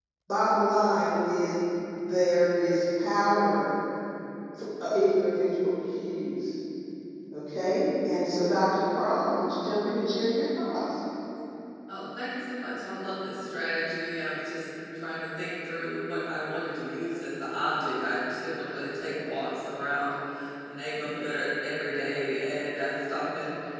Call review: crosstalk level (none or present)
none